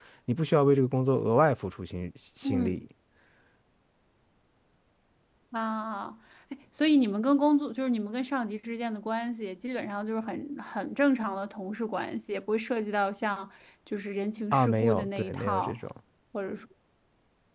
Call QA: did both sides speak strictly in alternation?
No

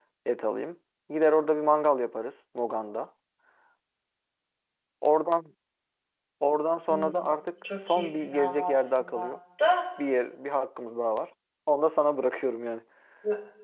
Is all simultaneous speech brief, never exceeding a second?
No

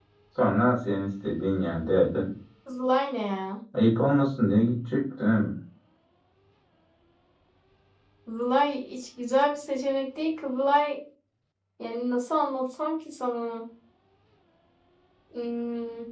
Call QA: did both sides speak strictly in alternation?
Yes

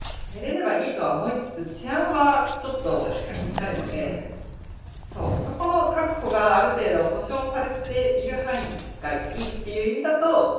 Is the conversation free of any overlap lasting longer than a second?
No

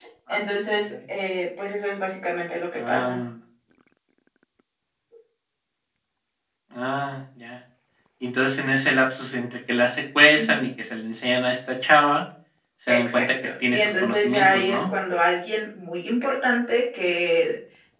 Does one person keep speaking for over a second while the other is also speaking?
Yes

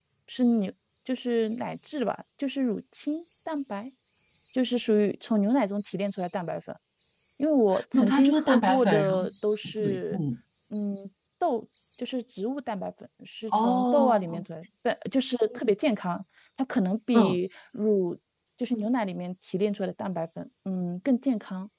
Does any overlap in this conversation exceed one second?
Yes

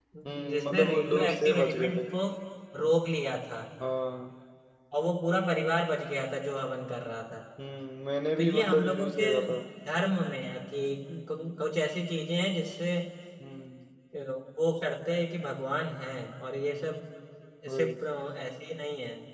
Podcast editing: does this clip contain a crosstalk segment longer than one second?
Yes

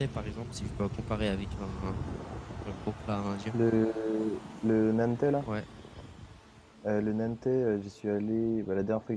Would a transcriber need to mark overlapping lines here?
No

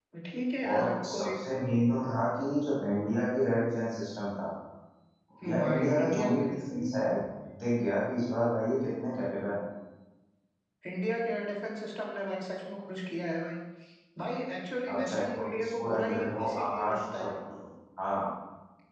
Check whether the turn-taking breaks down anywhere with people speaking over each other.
Yes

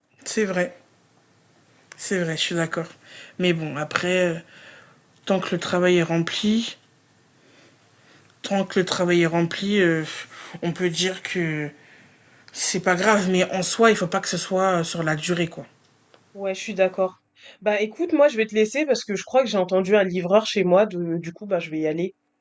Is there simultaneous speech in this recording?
No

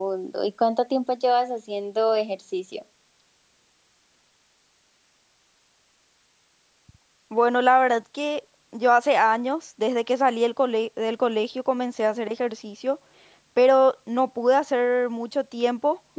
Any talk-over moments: No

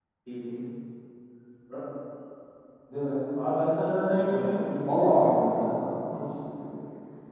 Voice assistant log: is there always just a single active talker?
No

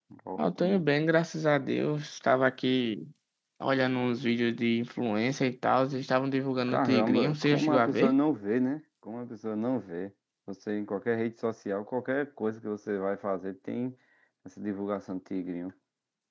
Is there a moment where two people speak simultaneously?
Yes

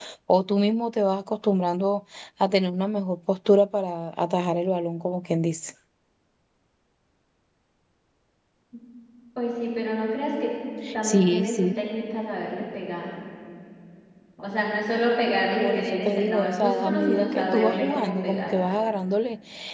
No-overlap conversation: No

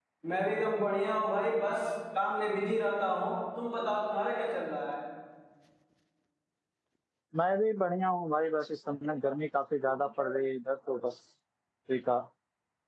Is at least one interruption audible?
No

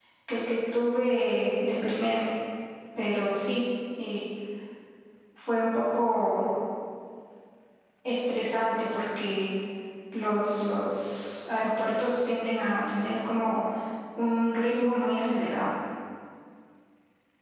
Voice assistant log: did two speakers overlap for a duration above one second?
No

